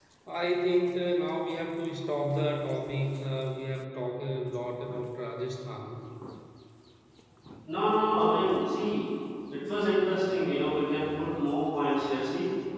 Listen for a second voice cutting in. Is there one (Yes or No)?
No